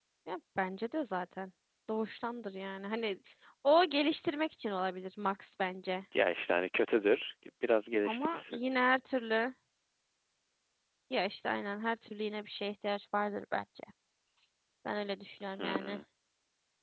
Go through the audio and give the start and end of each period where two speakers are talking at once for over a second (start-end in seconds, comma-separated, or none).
none